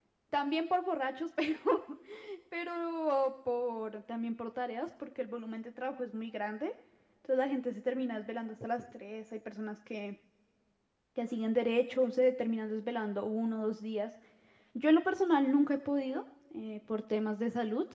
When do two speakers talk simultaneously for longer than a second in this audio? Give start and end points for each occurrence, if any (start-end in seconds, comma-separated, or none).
none